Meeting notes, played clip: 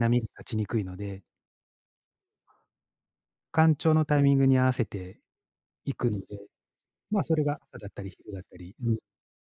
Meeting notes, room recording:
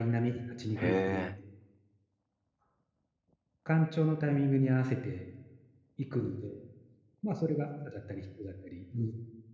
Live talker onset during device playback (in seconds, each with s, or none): 0.8 s